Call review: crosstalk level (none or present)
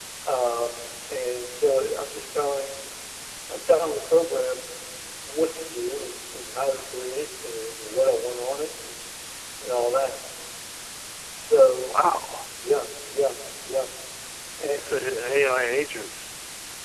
none